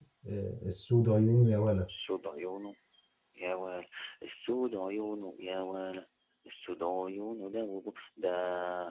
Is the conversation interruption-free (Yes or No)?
Yes